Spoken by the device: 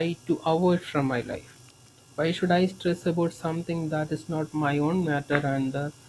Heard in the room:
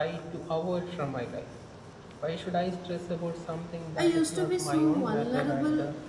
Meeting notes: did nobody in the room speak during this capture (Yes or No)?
No